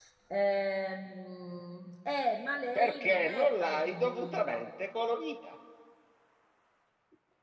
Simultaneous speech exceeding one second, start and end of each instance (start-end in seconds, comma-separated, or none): 2.8-4.7